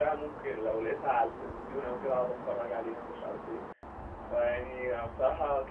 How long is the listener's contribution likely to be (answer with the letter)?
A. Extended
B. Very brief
B